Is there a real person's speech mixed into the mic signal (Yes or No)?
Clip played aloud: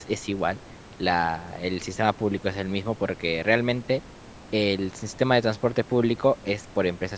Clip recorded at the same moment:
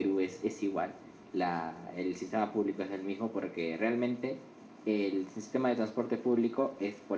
No